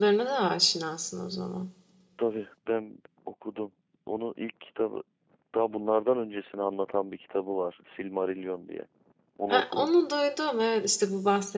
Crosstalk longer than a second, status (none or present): none